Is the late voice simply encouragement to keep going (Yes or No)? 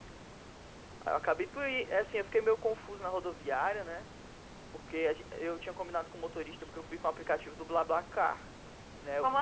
Yes